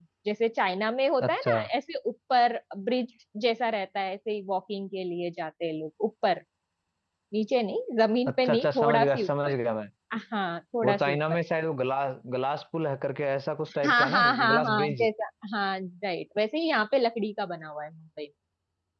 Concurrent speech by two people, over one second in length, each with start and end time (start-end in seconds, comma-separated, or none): 8.3-9.5, 13.8-15.1